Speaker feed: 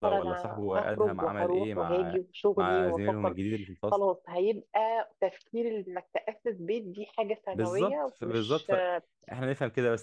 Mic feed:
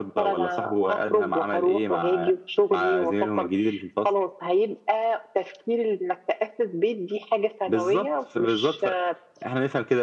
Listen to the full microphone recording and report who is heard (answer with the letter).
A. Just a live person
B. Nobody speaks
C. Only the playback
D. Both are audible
C